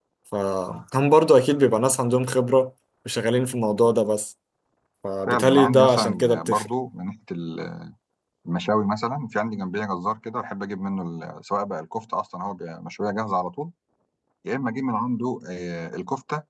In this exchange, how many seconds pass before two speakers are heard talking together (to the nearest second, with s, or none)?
5 s